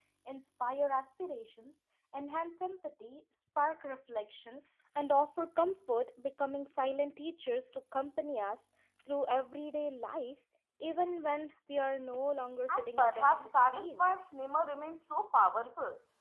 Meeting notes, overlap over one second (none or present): present